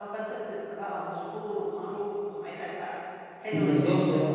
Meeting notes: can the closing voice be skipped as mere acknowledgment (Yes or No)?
No